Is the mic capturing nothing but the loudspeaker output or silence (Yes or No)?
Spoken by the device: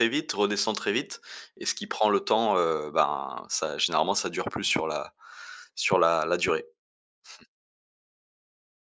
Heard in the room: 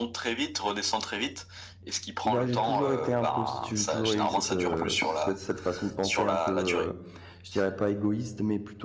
No